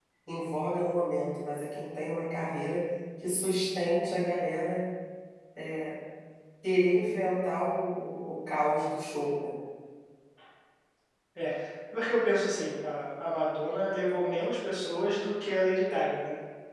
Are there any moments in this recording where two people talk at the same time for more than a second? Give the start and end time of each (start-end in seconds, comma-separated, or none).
none